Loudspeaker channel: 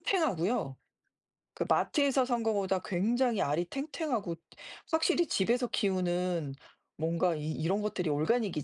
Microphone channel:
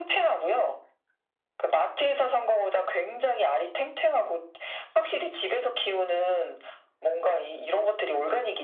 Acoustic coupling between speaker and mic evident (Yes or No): Yes